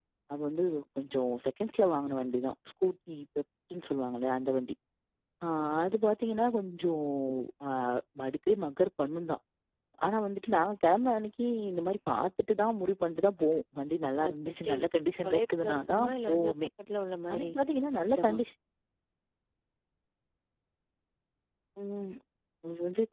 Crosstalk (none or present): present